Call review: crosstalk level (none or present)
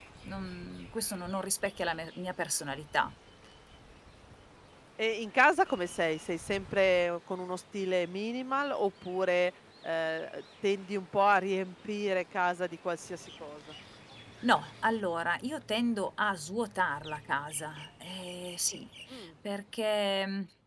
none